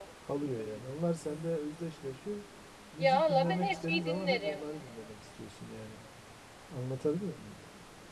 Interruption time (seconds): 3.0 s

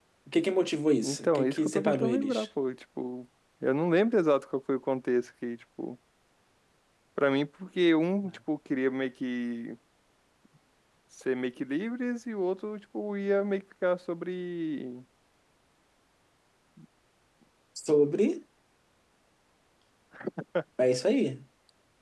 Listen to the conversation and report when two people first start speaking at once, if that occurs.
1.0 s

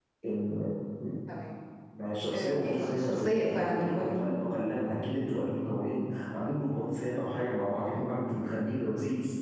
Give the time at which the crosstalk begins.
2.3 s

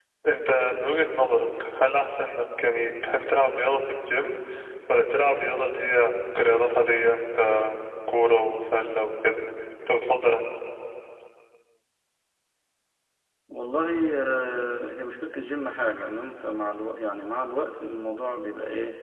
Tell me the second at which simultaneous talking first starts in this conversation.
none

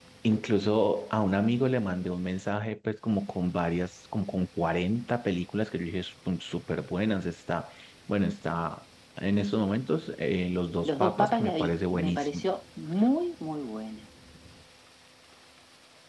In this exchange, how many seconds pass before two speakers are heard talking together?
10.8 s

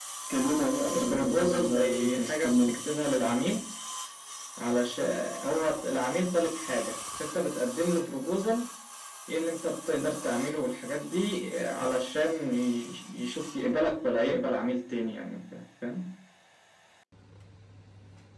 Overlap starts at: 0.9 s

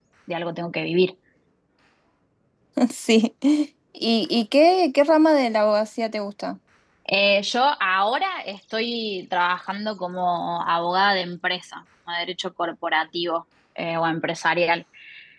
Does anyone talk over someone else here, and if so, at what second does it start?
none

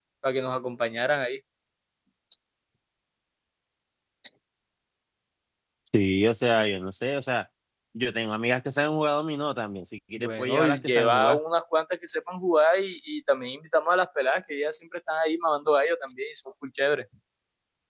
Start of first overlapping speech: 10.2 s

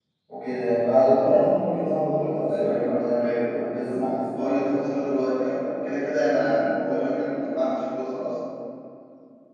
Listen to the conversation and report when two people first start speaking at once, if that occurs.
2.3 s

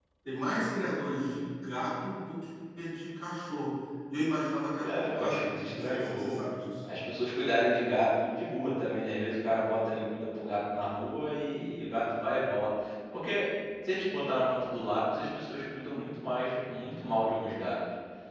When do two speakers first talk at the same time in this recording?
4.8 s

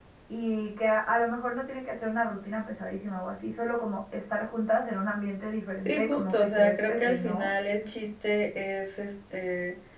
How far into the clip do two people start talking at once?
5.8 s

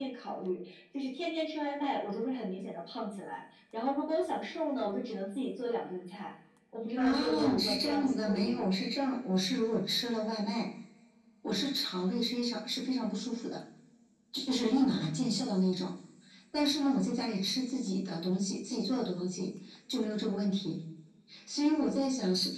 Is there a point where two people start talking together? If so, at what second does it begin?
7.0 s

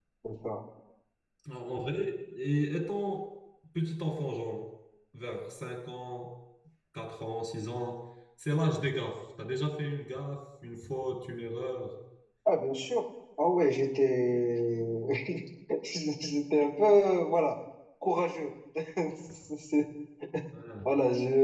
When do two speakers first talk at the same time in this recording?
none

